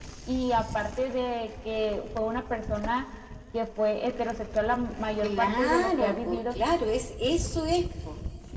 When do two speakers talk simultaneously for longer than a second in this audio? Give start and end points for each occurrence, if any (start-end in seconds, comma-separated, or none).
5.2-6.5